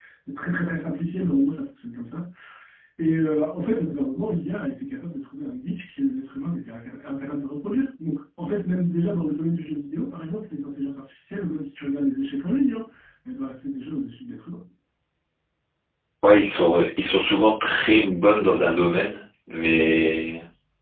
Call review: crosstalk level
none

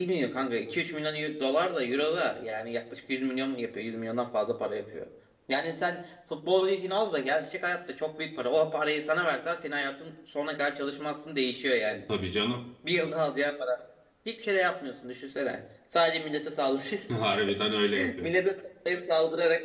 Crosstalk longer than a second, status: none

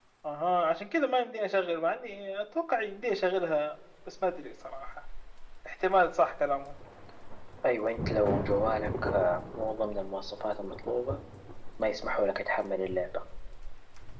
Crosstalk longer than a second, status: none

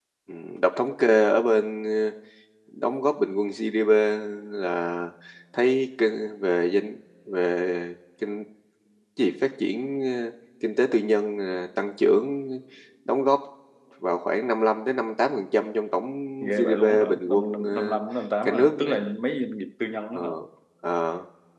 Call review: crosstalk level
present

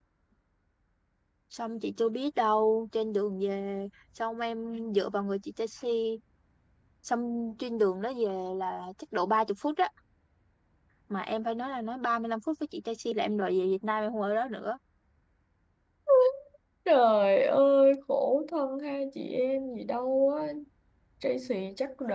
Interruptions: none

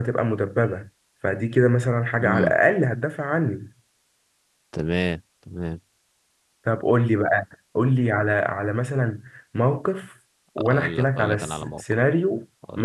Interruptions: present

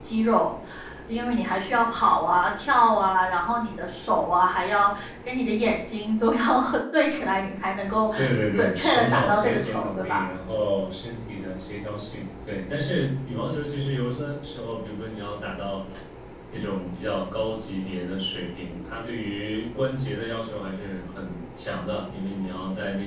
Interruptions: present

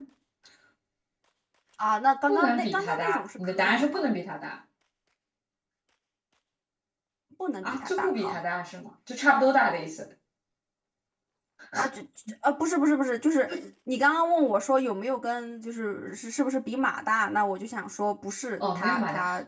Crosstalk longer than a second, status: present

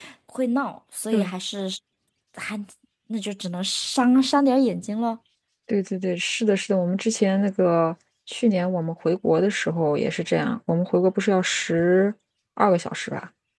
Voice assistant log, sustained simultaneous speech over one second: none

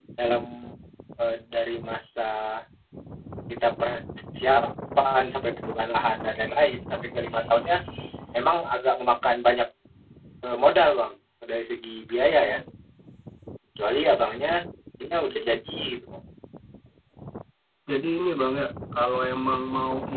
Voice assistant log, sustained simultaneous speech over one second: none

